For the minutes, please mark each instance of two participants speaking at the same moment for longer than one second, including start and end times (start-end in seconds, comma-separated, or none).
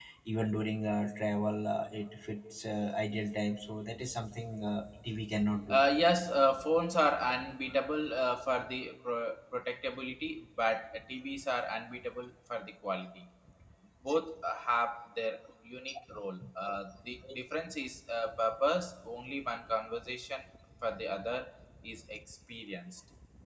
none